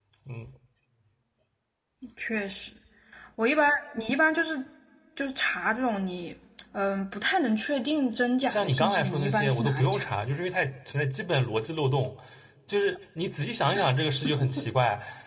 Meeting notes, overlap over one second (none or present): present